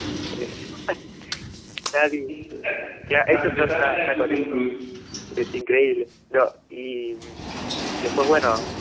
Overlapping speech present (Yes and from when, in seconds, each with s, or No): Yes, from 3.3 s